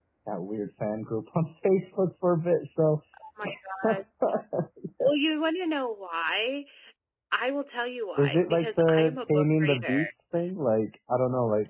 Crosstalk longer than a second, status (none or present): present